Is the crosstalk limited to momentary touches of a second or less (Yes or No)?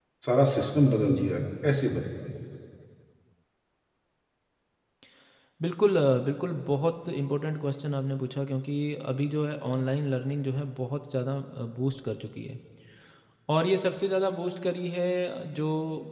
Yes